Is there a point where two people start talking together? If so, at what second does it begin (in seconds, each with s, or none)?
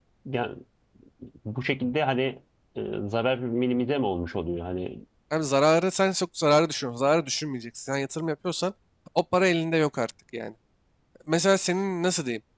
none